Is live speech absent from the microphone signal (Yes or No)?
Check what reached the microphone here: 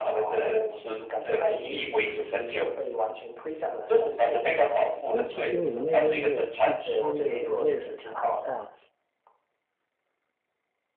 No